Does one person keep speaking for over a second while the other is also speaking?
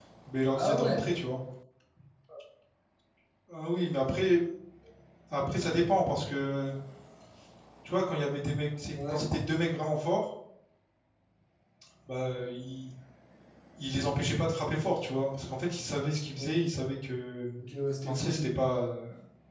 No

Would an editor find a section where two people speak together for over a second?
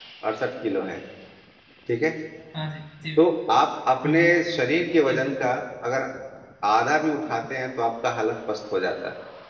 No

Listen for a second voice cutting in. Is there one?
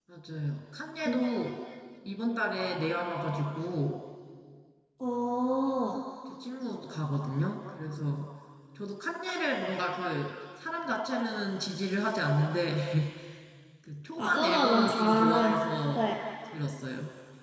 Yes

